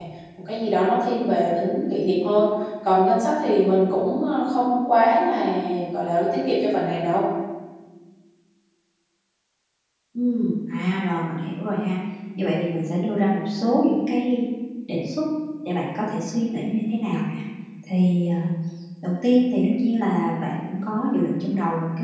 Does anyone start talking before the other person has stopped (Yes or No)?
No